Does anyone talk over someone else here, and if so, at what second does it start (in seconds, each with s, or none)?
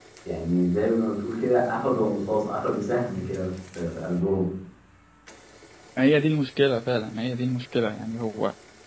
none